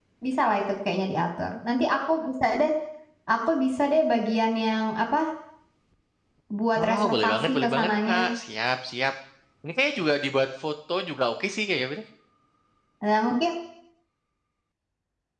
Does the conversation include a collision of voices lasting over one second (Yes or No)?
Yes